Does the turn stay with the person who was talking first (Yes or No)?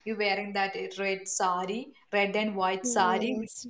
No